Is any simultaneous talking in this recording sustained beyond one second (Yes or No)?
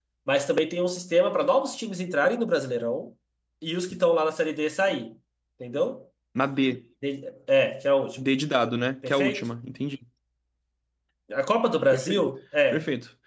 No